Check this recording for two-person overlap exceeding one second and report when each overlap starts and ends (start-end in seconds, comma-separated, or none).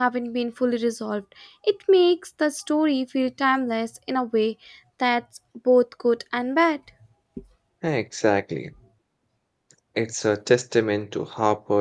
none